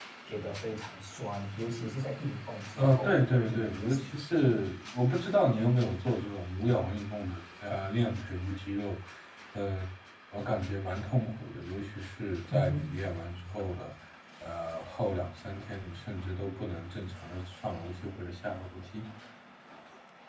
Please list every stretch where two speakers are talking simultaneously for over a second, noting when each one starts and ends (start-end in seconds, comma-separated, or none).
2.8-4.5